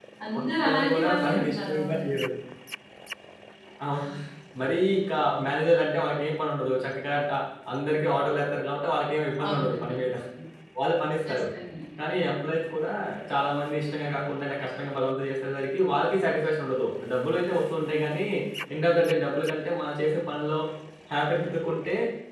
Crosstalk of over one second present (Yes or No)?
Yes